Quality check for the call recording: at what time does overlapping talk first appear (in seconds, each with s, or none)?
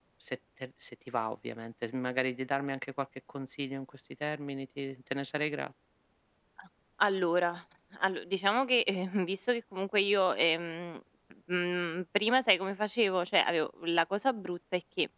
none